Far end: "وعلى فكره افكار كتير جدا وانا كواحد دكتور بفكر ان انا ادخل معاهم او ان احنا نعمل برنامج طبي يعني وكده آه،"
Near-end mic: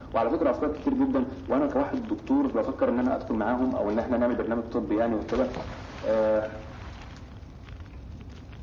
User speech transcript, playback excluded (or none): none